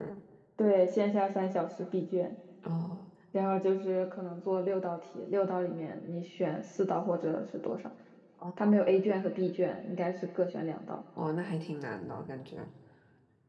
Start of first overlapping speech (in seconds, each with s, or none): none